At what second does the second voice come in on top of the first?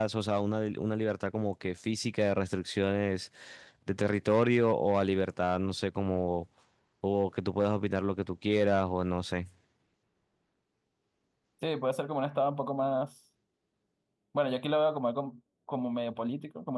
none

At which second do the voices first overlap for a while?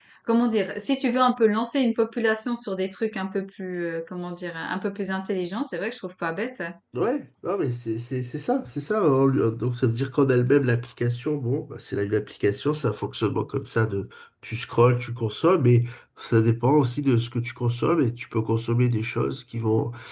none

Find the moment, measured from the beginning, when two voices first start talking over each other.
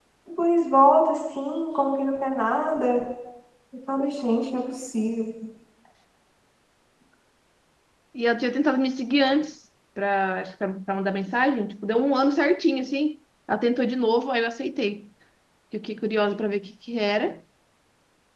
none

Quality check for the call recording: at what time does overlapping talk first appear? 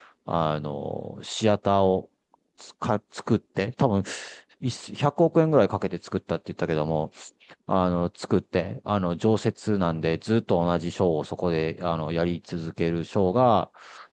none

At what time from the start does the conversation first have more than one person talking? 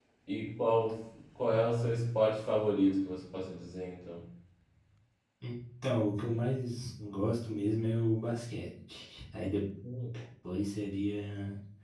none

